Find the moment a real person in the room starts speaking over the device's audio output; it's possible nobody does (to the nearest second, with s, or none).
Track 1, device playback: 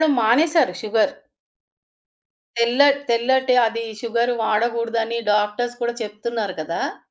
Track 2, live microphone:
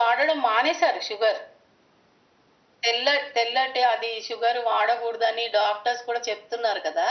none